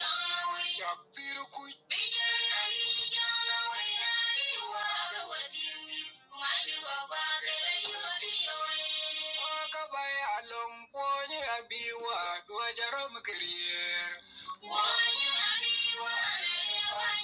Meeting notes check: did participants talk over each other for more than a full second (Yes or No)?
No